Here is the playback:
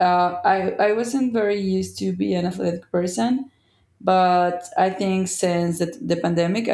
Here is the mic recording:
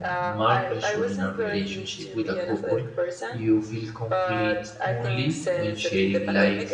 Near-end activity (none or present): present